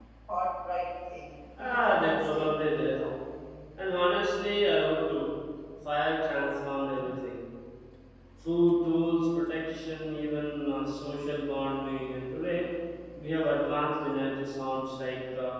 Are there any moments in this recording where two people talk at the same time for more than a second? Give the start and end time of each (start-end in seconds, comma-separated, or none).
1.6-2.9